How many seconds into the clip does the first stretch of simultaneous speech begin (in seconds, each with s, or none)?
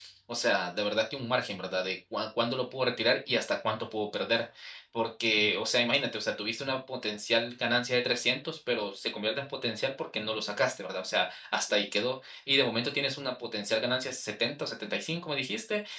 none